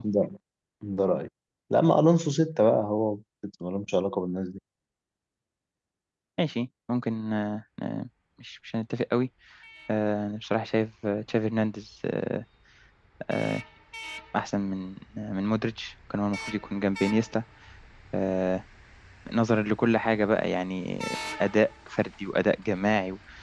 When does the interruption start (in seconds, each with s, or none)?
none